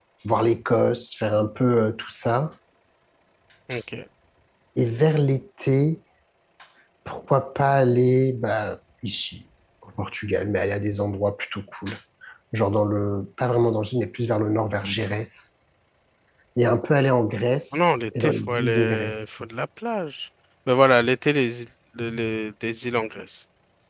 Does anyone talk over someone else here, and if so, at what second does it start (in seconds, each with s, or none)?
17.7 s